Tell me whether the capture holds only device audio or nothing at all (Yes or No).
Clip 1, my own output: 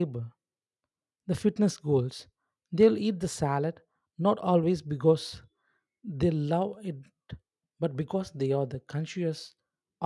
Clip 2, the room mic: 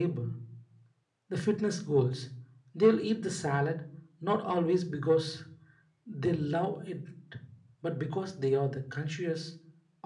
Yes